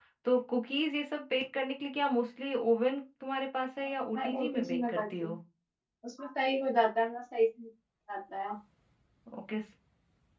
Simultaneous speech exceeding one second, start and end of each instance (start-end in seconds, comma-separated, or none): 4.2-5.4